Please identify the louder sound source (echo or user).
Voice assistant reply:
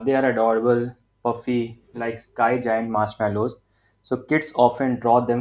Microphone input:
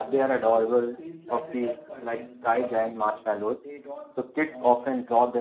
echo